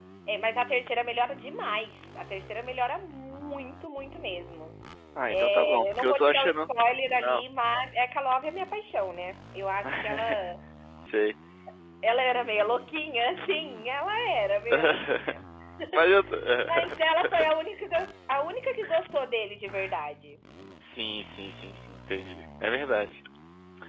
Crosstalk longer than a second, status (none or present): present